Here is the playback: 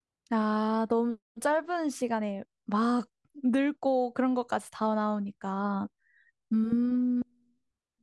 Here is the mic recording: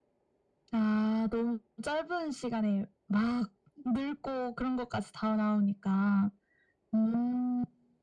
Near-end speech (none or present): none